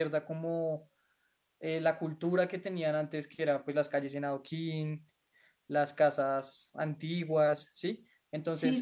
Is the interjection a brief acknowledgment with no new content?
No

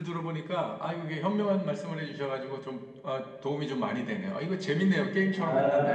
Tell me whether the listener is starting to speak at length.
Yes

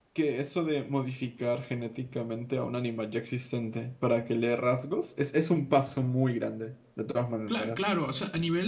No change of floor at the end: No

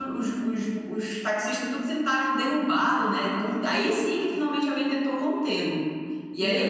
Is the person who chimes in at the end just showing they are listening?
Yes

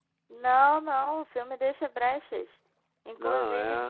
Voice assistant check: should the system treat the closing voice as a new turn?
No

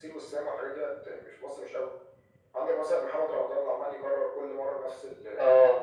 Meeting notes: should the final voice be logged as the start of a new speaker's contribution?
No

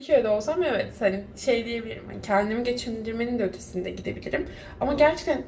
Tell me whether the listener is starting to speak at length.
No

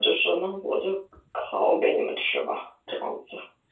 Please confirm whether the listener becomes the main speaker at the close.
Yes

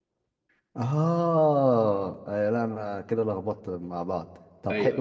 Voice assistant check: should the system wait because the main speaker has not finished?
Yes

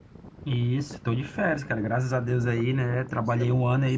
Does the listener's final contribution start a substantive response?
No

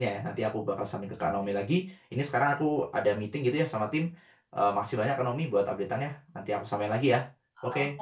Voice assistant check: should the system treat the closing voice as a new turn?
Yes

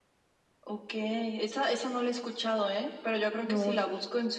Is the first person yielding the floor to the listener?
No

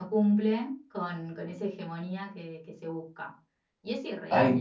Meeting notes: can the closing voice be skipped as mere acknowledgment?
No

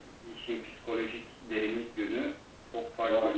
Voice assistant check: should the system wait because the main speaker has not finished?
No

